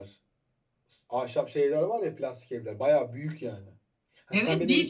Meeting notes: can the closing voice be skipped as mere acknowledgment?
No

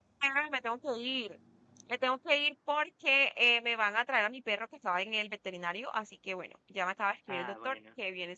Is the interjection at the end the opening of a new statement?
No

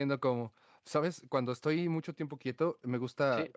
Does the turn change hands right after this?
No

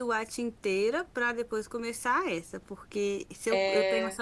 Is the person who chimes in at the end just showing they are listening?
Yes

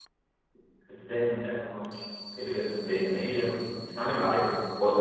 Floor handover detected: Yes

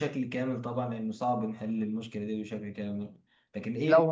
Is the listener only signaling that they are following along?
Yes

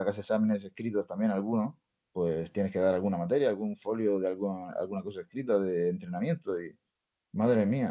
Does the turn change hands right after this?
No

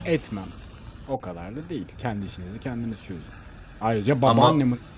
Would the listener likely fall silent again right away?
Yes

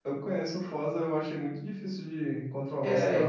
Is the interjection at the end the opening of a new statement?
Yes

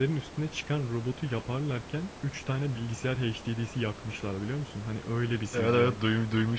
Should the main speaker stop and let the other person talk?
Yes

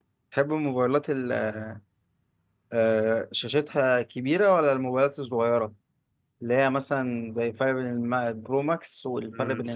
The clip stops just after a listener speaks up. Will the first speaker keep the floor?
No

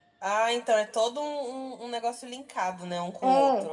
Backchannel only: No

